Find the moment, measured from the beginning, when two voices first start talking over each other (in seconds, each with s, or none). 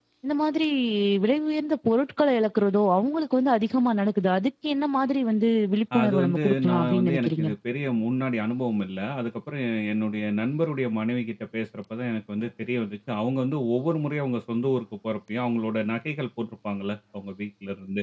5.9 s